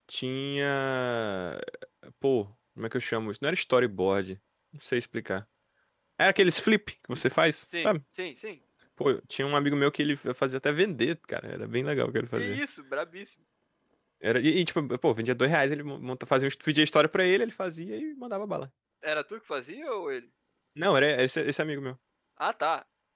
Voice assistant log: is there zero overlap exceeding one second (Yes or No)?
Yes